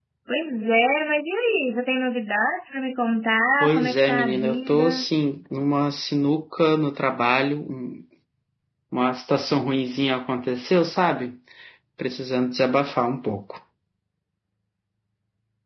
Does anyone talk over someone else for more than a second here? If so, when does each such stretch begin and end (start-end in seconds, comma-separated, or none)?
3.6-5.0